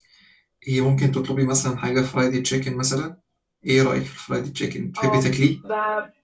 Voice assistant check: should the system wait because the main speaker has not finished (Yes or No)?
No